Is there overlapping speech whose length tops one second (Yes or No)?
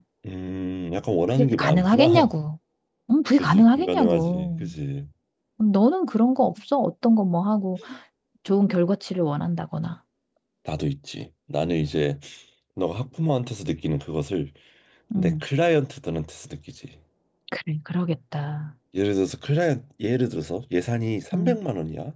Yes